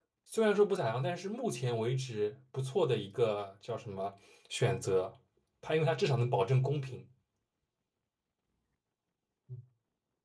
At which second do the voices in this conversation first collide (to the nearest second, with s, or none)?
none